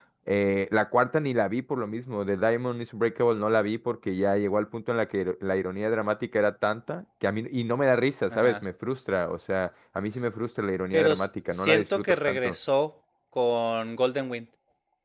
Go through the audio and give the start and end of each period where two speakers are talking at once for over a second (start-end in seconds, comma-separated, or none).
10.9-12.6